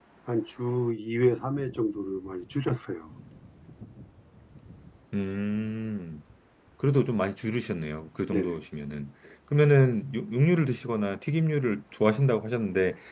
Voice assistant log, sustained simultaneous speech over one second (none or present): none